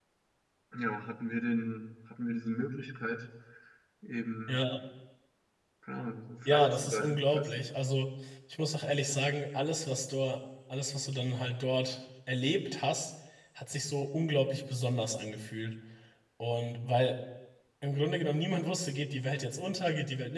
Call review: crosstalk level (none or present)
present